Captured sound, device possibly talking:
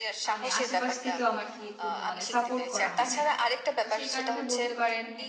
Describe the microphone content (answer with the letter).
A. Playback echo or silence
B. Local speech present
B